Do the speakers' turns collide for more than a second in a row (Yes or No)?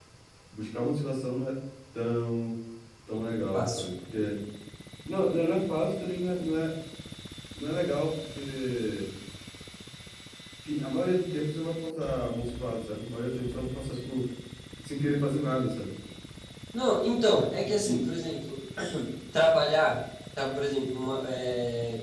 No